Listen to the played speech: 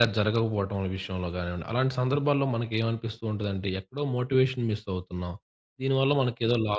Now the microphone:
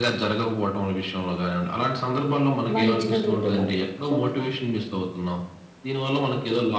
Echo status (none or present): present